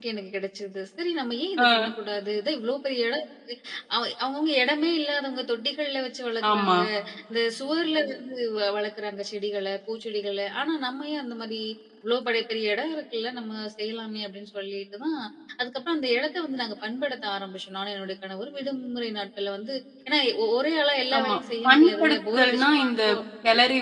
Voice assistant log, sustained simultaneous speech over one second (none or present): present